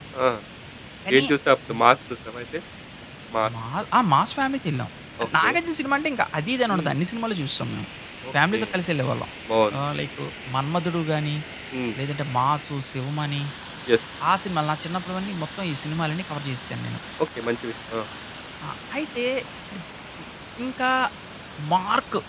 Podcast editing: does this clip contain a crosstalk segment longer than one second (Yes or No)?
No